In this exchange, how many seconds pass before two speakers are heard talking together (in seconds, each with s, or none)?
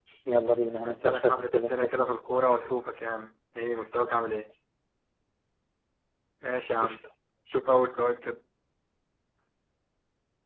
0.8 s